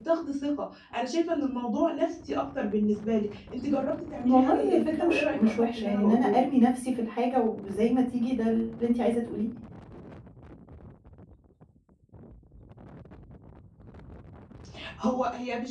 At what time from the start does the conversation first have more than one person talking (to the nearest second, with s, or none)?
4 s